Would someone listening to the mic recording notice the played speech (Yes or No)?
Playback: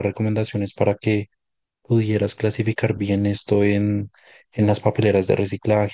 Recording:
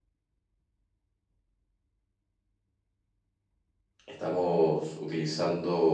No